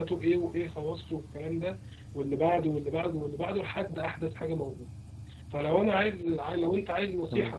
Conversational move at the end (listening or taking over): listening